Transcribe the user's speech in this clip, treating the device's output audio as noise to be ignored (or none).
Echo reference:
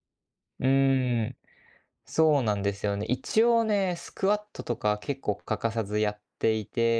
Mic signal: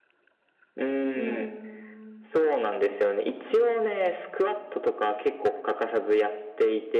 うーん。